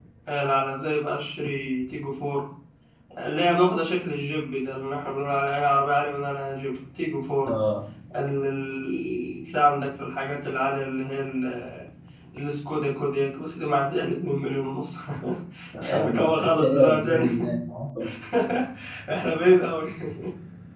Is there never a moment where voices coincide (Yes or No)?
No